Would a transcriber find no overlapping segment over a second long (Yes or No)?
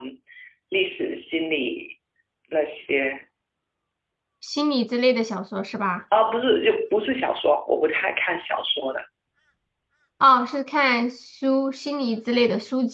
Yes